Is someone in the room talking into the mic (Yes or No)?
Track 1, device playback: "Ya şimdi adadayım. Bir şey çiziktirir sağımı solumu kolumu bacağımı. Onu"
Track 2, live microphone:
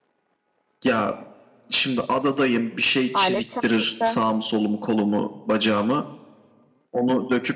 Yes